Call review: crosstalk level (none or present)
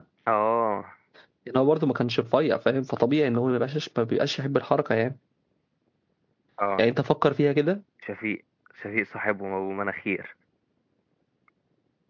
none